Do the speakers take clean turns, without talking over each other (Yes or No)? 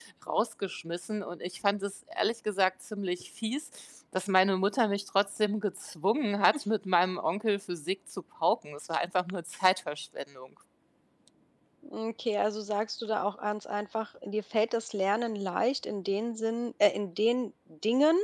Yes